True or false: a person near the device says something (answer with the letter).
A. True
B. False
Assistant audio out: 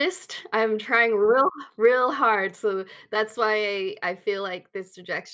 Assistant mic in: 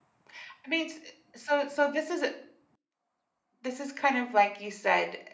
A